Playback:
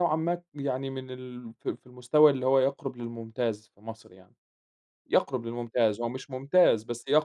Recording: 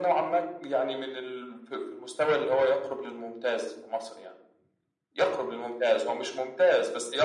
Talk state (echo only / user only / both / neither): echo only